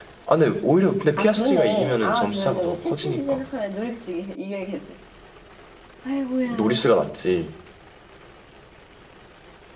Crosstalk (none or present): present